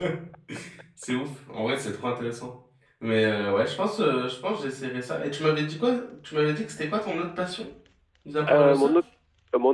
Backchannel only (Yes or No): No